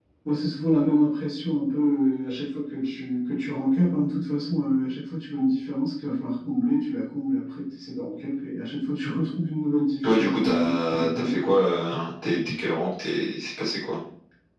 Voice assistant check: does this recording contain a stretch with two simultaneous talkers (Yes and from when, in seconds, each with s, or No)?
Yes, from 10.0 s